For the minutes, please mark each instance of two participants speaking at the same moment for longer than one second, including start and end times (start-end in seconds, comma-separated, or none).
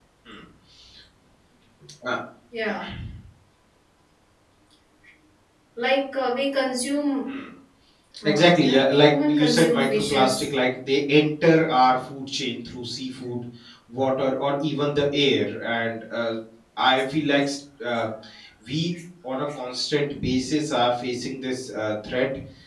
8.2-10.4